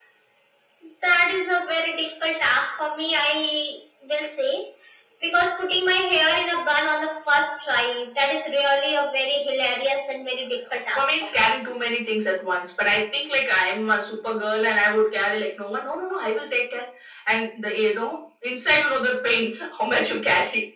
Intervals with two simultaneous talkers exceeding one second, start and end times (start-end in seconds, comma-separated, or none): none